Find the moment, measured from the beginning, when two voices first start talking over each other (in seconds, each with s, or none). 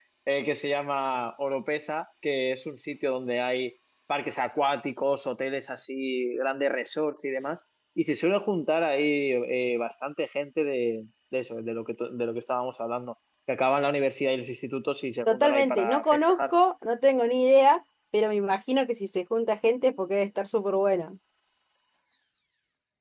15.3 s